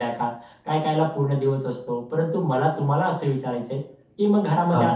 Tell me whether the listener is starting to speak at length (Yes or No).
No